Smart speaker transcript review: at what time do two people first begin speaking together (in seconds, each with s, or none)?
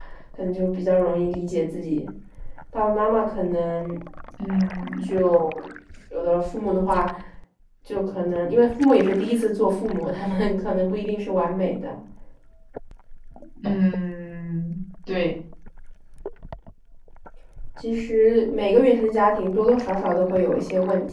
none